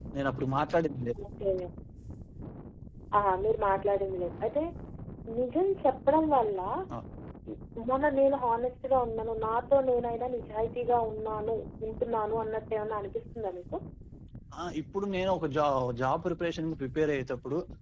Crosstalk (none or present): none